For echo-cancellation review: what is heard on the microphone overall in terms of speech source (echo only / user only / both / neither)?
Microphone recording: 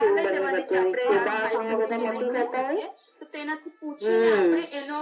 both